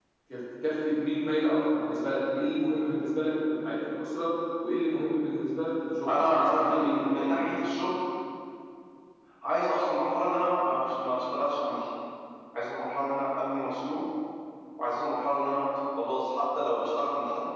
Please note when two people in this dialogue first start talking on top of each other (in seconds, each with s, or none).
6.0 s